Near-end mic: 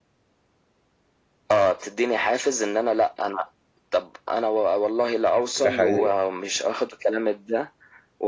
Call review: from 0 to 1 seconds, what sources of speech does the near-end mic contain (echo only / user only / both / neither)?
neither